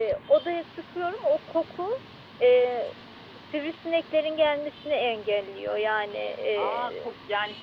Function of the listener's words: taking over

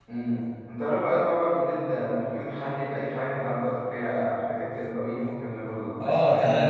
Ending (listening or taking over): taking over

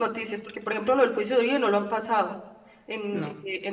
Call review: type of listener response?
listening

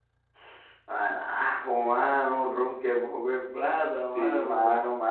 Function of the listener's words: taking over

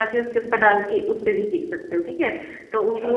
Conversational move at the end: listening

